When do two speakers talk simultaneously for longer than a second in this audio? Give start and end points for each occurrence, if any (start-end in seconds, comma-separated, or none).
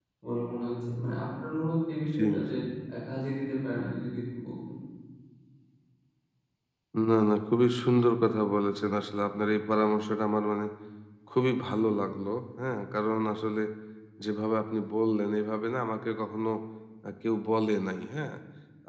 none